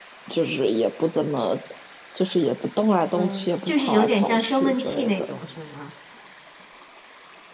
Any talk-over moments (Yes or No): Yes